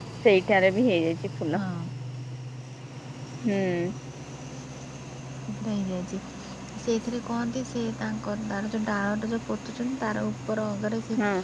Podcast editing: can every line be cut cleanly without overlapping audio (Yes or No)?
Yes